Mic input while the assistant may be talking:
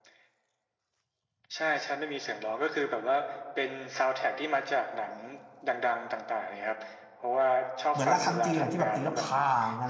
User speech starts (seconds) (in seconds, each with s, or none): 7.9 s